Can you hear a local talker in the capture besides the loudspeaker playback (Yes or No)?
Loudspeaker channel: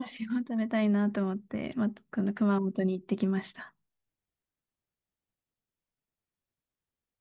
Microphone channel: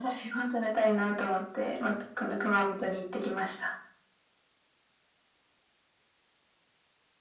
No